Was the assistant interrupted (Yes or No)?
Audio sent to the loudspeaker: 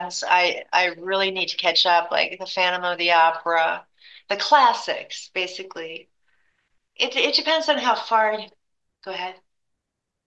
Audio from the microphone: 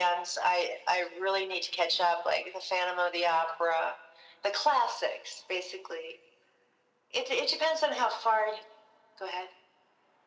No